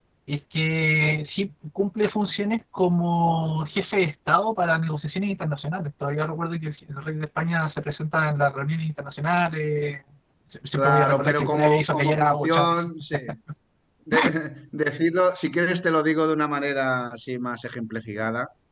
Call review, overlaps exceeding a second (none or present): present